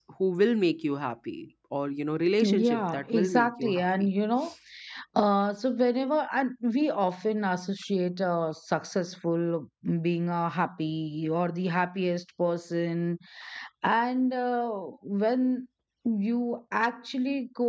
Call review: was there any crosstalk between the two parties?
Yes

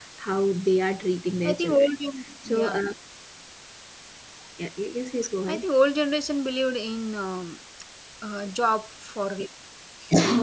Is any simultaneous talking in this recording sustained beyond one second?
No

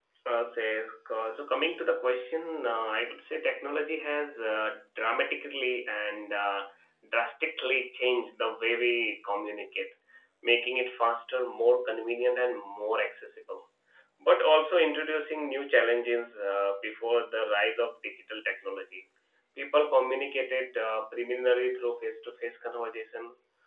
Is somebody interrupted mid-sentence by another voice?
No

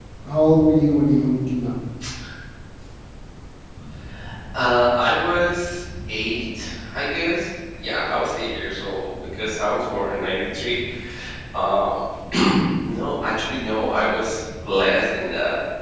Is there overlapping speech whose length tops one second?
No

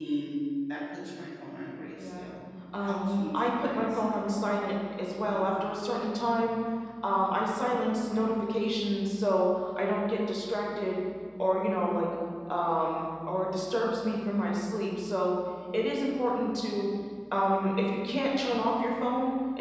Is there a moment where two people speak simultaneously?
Yes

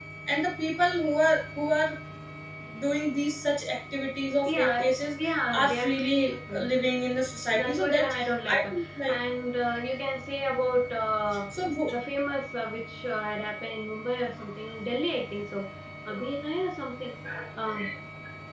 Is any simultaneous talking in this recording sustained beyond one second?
Yes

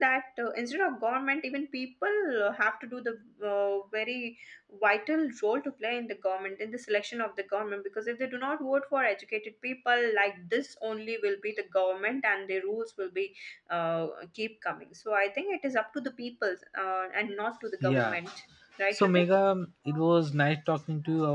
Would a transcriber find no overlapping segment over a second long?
Yes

